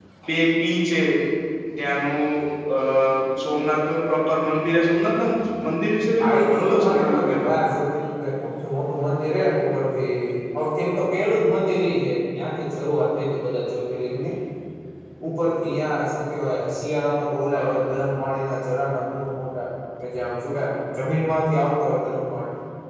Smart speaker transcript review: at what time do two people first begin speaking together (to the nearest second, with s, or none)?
6 s